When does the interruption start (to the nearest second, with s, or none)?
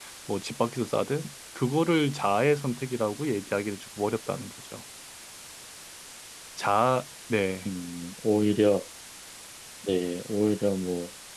none